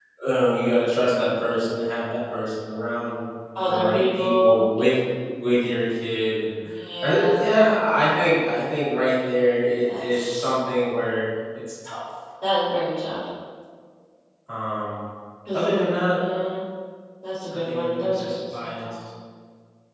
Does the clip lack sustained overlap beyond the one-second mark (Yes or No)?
No